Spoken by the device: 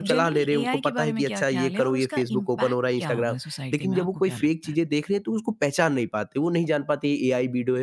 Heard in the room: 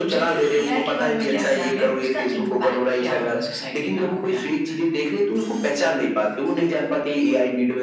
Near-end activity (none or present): none